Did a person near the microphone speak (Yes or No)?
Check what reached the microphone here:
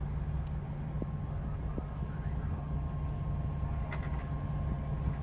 No